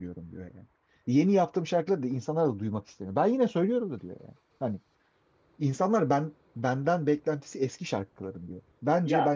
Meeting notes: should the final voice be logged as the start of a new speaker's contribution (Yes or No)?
Yes